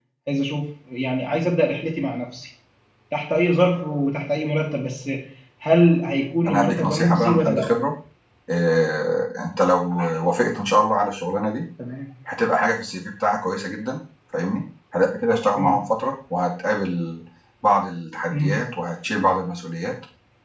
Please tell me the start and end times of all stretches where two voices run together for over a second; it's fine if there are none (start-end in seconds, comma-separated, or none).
6.5-7.8